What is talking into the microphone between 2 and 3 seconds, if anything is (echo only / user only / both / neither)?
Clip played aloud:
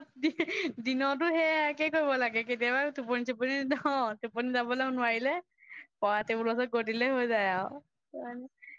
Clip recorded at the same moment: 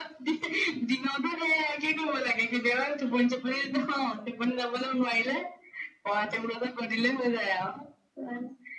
echo only